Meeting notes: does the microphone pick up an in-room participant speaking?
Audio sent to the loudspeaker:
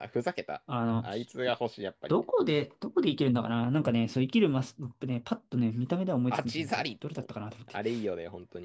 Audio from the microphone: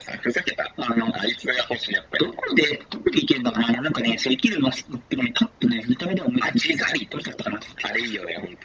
No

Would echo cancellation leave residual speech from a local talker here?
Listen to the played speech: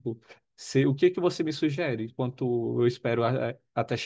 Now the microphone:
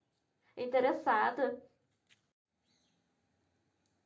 Yes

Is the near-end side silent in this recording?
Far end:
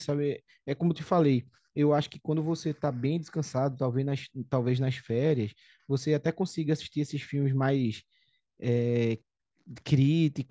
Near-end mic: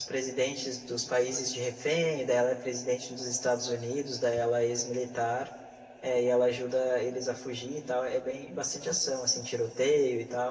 No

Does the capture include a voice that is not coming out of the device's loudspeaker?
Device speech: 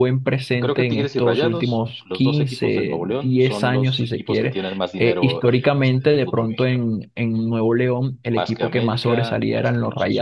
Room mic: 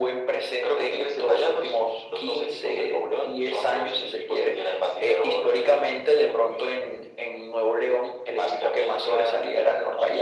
No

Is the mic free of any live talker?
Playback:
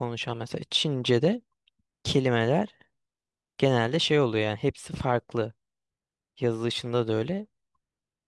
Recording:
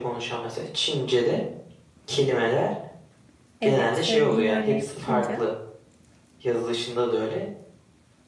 No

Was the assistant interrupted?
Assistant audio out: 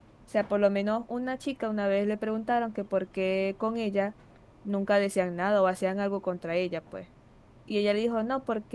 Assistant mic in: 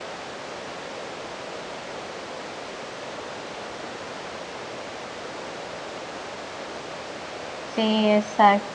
Yes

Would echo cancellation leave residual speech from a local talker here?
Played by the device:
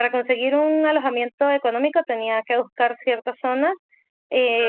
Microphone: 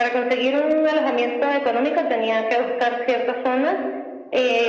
No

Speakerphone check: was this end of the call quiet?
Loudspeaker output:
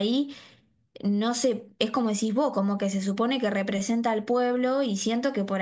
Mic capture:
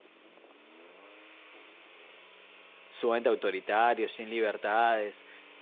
No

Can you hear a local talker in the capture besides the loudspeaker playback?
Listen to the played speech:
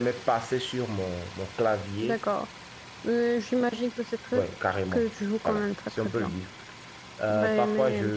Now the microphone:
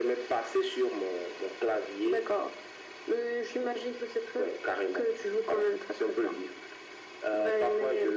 No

